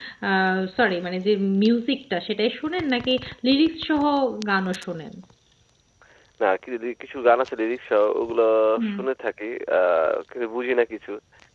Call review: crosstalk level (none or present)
none